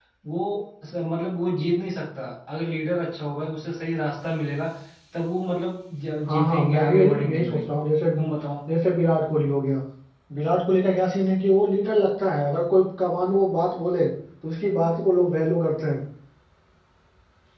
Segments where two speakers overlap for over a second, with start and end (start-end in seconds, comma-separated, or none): 6.3-7.6